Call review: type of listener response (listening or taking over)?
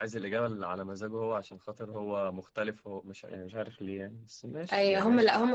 taking over